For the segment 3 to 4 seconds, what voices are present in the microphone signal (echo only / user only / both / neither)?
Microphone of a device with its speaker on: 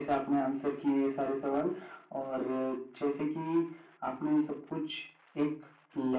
echo only